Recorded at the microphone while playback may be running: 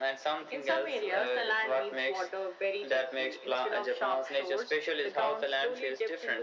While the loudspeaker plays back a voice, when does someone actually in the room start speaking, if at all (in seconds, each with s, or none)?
none